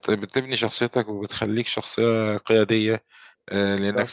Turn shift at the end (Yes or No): No